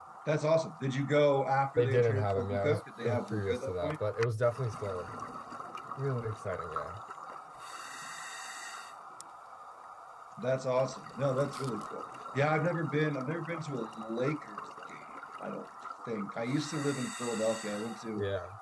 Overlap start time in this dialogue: 1.8 s

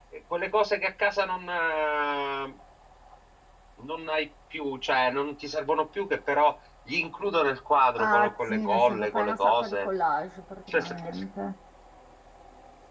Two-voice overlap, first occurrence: 8.0 s

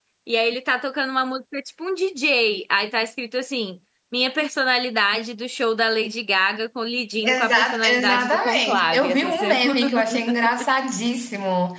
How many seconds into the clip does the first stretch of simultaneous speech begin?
7.2 s

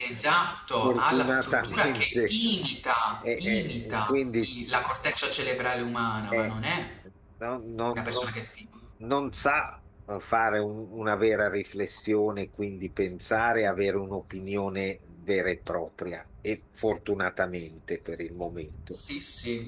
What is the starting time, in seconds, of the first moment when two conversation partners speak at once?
0.8 s

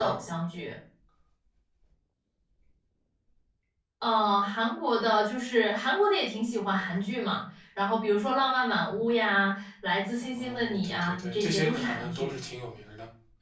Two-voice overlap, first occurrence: 10.3 s

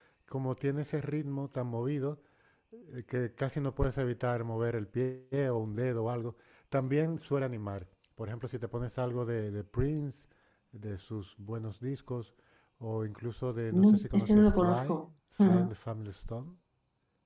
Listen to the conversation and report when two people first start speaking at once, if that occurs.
13.7 s

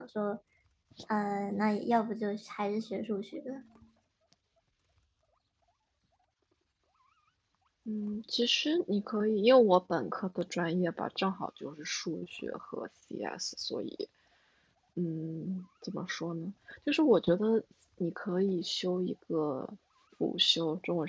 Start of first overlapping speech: none

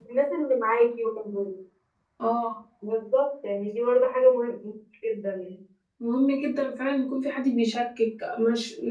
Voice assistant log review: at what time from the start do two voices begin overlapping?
none

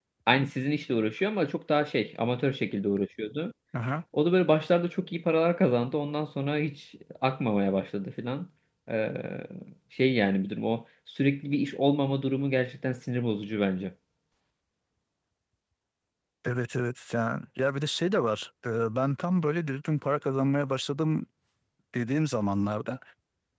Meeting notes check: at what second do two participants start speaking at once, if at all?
none

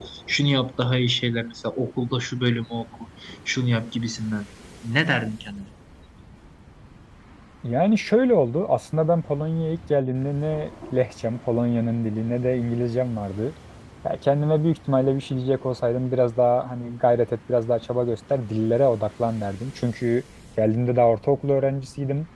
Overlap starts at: none

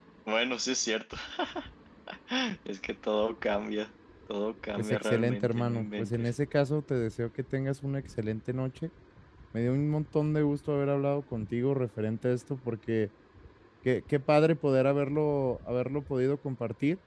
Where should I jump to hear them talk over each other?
4.8 s

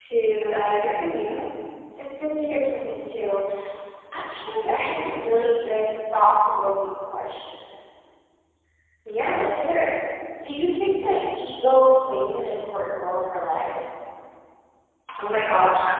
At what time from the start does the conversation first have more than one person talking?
none

